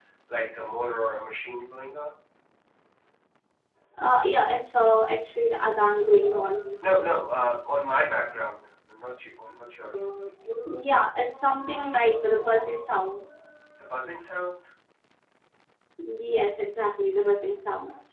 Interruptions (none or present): none